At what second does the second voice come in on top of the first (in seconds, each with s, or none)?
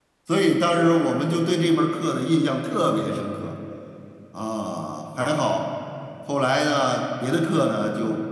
none